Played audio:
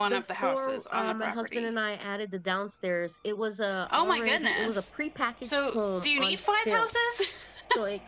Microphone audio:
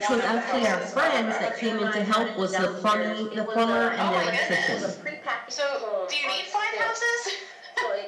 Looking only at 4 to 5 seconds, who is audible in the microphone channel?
both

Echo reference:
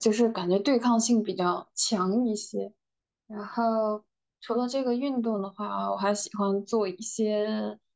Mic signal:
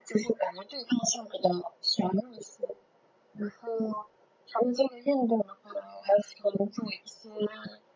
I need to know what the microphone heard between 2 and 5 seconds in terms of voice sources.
echo only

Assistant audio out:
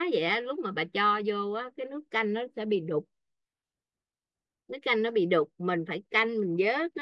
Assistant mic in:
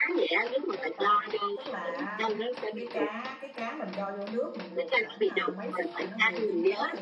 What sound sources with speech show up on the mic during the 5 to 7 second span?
both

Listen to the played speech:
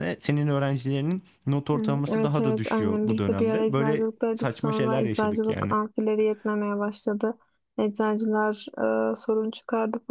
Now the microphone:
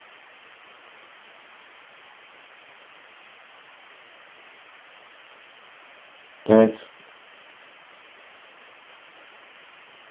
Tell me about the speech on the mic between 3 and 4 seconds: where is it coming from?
neither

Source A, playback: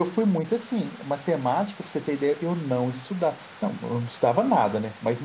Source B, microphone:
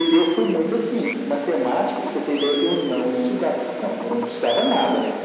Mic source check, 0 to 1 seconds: echo only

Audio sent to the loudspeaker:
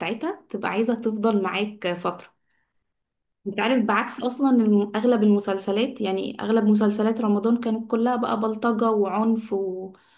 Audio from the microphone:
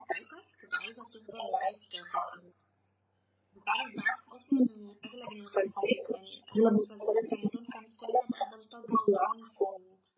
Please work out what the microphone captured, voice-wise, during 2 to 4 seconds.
echo only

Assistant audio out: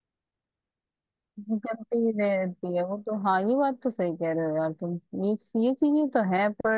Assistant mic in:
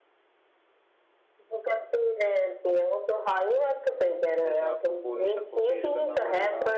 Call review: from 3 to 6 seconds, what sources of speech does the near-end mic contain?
both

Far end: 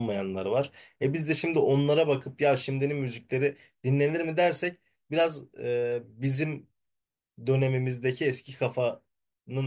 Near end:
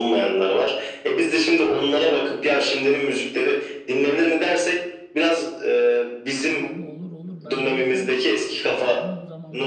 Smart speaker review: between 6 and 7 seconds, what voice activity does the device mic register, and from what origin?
both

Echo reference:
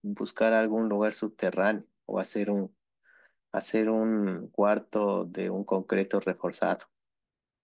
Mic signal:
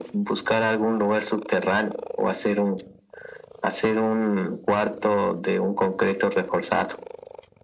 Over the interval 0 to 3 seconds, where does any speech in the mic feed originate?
echo only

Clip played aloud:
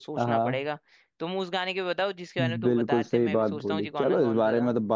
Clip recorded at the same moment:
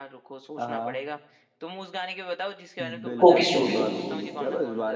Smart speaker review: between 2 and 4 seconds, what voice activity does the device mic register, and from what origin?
both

